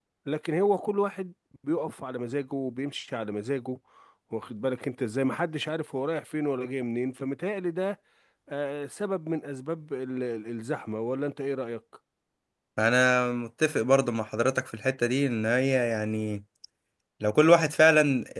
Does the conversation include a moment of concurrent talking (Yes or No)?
No